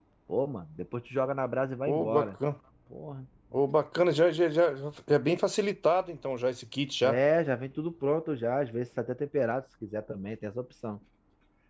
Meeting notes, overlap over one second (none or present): none